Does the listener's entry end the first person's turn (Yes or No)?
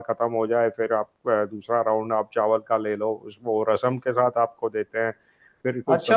Yes